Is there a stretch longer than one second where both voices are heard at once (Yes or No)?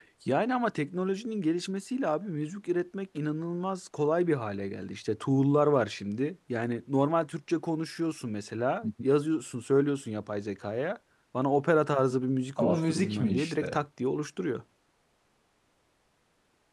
Yes